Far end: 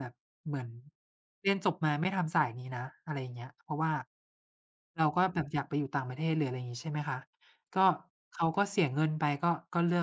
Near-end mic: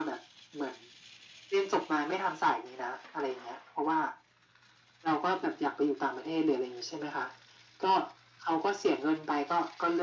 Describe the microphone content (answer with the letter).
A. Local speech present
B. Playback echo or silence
B